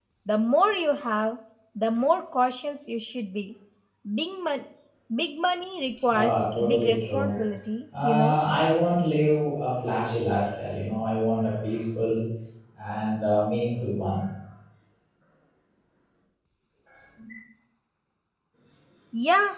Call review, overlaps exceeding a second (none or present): present